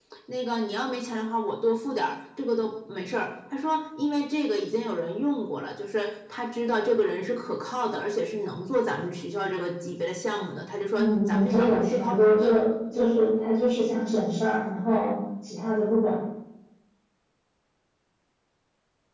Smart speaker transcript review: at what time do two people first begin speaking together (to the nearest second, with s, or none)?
11 s